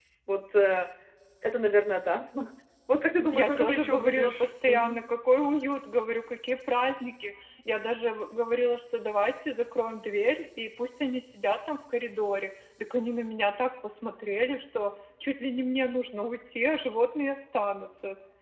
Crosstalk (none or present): present